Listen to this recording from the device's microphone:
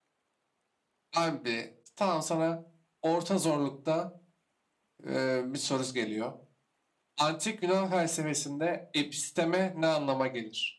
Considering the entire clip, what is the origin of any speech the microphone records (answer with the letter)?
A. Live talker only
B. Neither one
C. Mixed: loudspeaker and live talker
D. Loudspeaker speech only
D